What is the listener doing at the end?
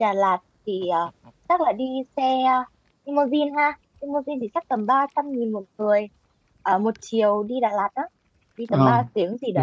taking over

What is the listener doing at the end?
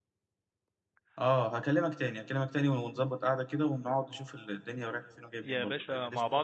taking over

